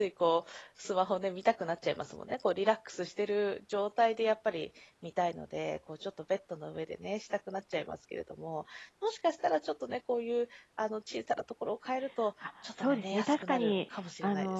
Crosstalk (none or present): present